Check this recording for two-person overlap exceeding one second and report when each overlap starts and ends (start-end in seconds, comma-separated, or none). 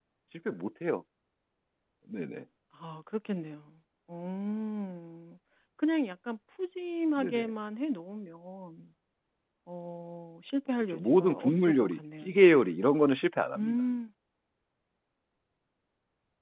10.9-12.3